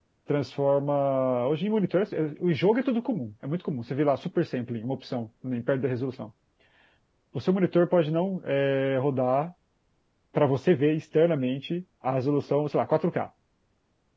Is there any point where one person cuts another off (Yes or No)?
No